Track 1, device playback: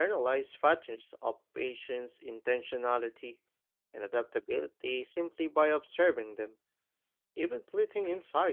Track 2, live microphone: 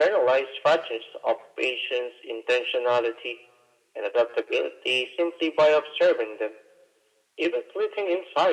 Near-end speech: none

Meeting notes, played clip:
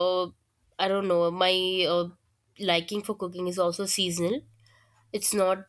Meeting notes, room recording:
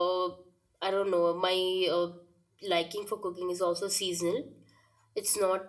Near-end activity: none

